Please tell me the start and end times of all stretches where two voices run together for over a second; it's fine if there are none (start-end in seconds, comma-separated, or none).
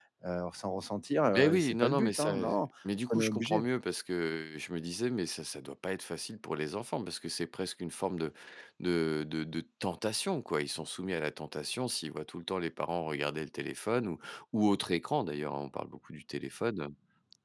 1.3-2.6